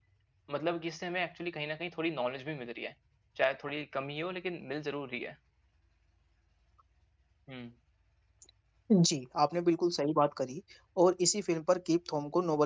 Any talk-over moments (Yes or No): No